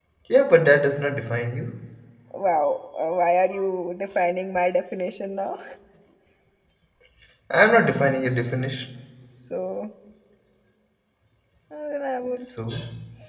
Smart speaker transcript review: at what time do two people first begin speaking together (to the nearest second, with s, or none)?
none